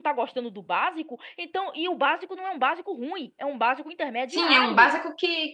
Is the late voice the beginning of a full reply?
Yes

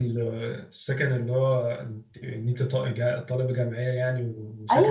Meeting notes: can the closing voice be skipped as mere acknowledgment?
No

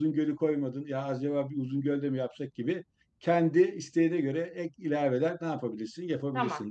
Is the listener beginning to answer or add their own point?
Yes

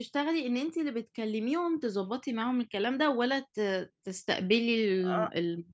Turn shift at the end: Yes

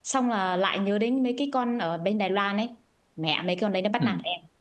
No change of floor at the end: No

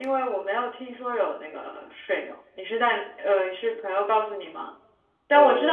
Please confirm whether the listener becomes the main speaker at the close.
No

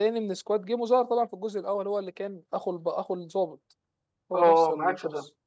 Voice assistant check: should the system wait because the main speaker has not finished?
No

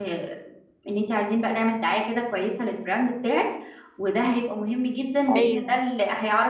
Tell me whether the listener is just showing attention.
Yes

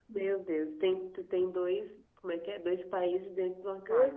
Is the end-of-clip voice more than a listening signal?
Yes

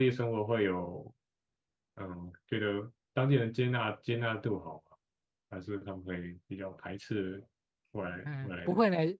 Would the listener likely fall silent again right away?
No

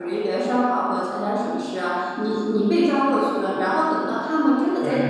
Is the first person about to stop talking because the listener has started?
No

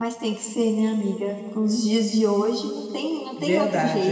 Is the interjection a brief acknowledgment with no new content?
No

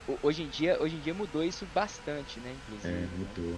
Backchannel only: No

